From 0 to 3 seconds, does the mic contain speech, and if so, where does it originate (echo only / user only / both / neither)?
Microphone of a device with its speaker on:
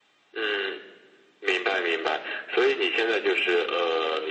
echo only